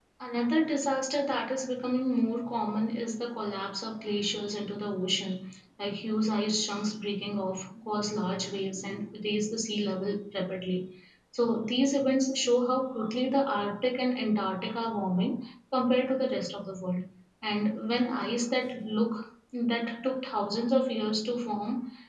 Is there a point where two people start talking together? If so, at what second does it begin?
none

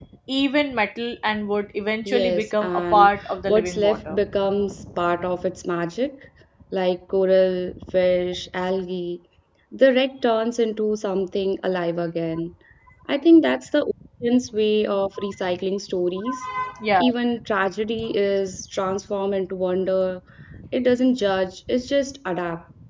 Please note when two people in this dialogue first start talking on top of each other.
2 s

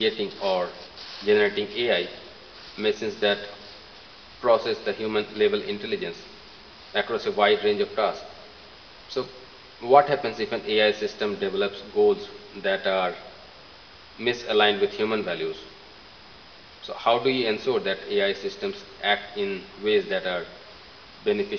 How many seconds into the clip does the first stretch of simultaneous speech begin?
none

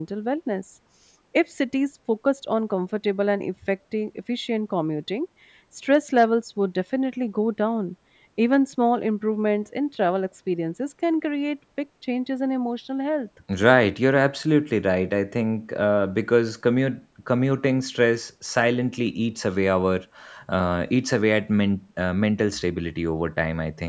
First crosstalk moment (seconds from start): none

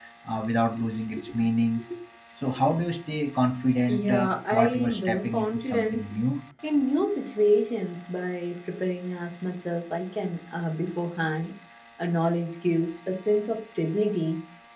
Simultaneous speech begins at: 4 s

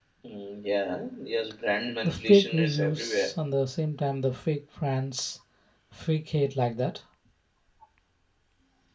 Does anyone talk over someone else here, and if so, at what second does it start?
2 s

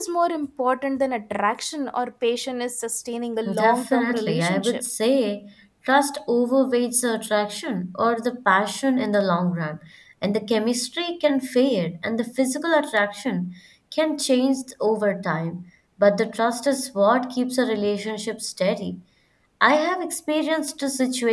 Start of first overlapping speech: 3 s

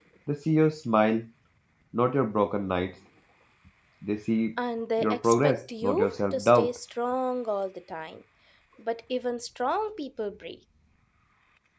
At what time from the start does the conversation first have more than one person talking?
5 s

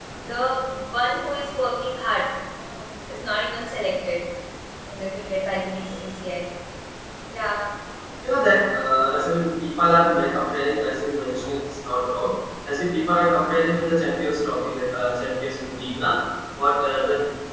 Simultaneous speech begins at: none

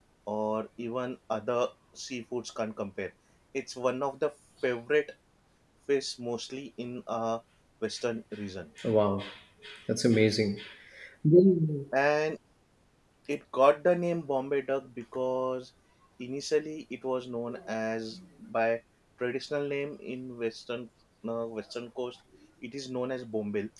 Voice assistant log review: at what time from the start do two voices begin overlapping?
none

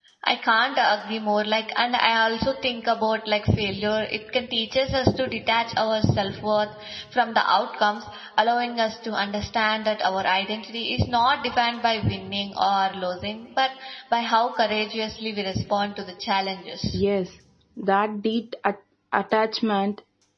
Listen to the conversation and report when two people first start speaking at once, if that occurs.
none

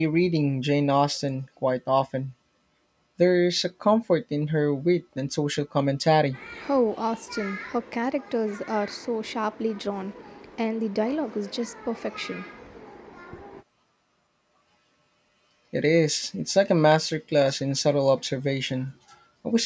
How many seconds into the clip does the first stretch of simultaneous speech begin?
none

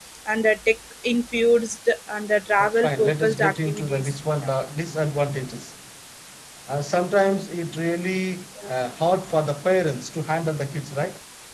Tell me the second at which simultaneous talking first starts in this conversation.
3 s

